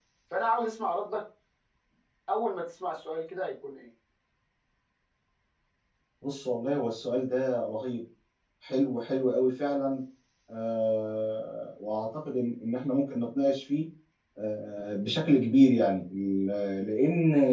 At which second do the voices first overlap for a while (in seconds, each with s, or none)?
none